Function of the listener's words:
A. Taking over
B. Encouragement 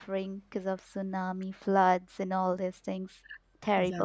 A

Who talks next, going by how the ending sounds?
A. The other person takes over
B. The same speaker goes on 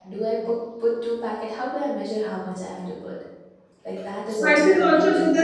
A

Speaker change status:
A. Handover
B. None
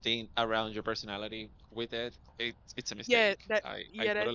A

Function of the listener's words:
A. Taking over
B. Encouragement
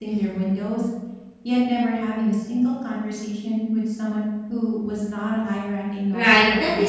A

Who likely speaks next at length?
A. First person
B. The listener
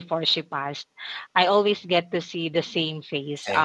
A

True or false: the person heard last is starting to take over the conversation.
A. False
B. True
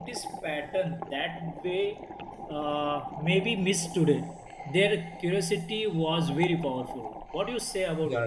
B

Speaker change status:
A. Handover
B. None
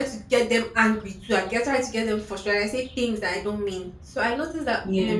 B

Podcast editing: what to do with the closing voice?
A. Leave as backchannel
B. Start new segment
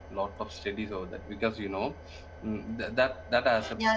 B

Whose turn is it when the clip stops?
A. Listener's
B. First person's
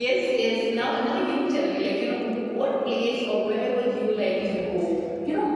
A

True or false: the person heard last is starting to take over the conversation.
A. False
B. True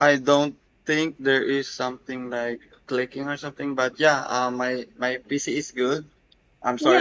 B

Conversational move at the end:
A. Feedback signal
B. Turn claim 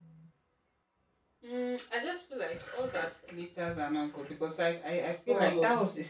A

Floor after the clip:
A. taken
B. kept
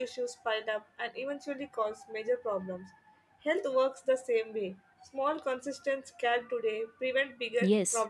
A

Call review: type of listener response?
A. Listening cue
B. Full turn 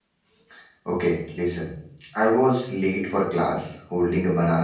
A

